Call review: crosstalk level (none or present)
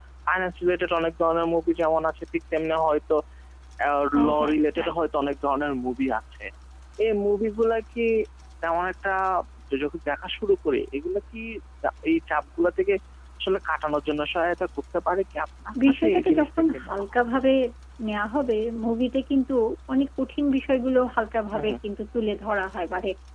present